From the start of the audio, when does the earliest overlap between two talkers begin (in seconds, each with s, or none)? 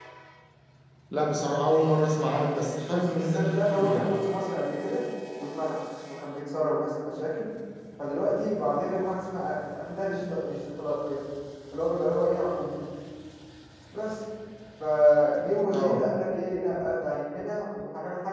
2.8 s